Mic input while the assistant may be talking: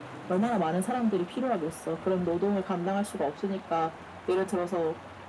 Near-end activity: none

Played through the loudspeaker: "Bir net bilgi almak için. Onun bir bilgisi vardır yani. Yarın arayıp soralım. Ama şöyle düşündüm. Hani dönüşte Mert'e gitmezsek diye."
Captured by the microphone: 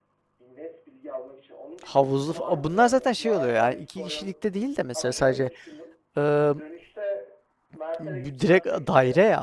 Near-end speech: present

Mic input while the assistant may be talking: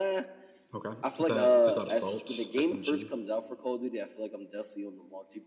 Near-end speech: present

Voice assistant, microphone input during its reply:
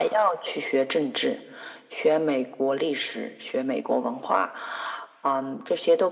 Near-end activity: none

